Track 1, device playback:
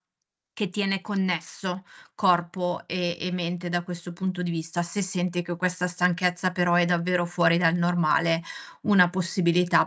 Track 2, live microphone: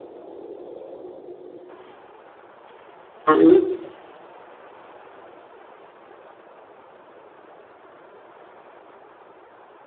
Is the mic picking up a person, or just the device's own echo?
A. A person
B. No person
A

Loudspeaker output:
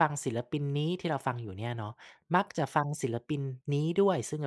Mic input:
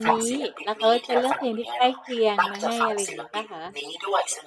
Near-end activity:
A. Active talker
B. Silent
A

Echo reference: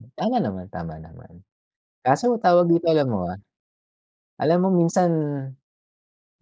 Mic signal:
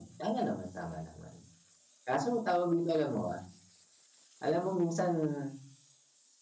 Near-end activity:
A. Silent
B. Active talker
A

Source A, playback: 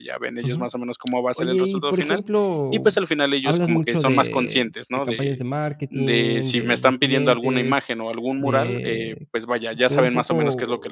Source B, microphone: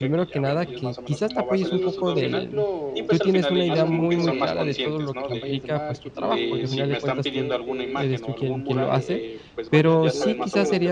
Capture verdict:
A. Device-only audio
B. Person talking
B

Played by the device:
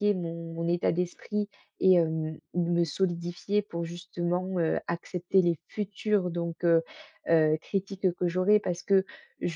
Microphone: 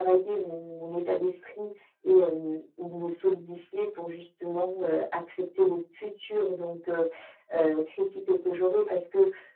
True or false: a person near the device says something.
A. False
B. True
A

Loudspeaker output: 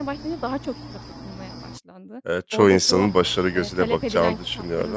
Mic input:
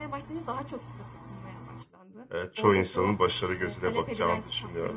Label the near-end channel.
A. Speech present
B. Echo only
B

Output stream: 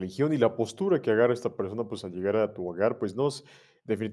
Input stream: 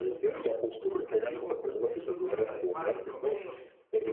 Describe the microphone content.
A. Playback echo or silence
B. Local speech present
B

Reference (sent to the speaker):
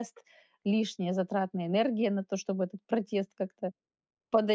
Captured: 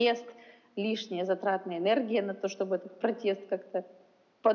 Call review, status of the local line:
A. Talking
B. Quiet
B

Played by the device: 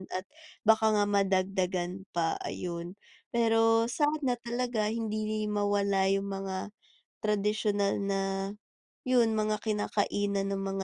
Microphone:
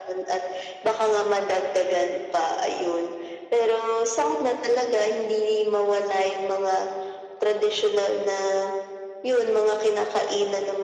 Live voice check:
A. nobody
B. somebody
A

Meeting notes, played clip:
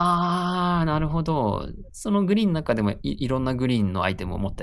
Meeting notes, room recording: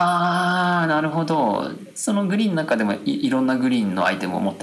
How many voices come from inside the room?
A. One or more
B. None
B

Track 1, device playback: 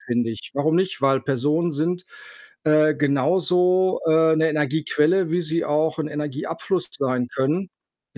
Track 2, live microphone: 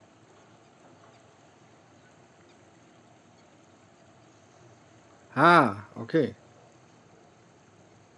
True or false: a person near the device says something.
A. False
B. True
B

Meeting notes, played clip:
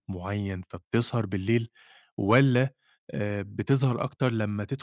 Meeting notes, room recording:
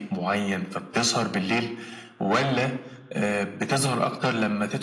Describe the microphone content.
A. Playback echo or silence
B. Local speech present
A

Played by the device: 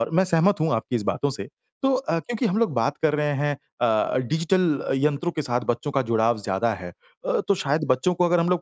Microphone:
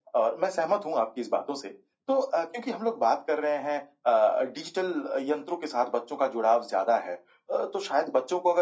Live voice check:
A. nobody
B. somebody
A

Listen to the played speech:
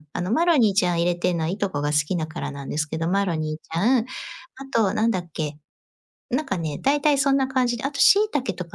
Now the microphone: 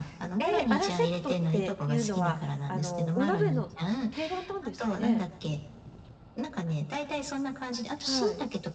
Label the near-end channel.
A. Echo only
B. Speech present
B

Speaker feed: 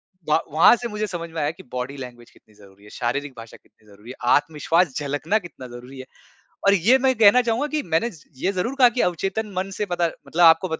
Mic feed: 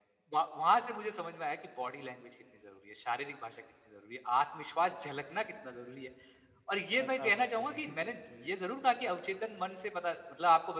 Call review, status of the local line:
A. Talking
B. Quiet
A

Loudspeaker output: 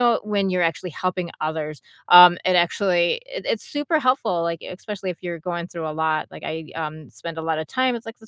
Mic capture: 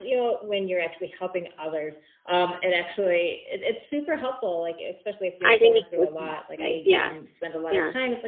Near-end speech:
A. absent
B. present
B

